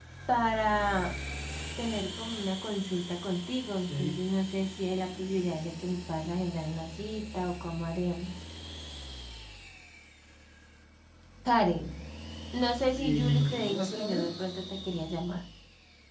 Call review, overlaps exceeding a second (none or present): present